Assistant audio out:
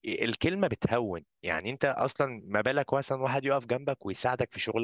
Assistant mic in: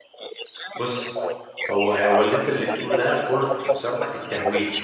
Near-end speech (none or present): present